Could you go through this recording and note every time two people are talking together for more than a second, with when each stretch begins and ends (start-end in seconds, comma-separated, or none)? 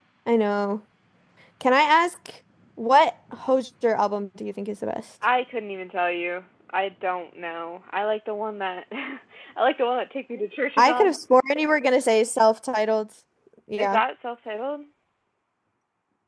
none